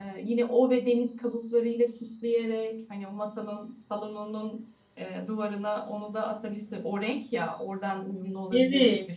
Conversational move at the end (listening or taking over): taking over